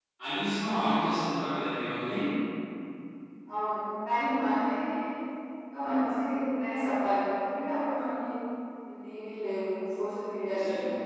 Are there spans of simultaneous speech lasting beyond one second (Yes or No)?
No